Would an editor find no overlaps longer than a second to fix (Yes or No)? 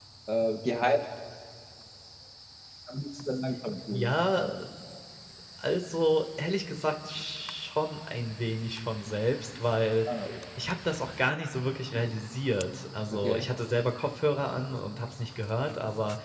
Yes